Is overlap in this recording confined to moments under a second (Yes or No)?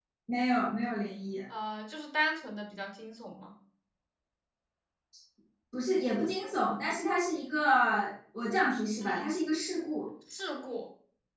Yes